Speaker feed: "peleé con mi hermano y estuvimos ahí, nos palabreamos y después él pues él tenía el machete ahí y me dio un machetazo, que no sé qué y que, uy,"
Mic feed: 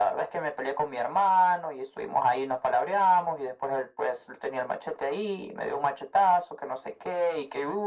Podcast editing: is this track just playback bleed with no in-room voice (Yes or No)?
Yes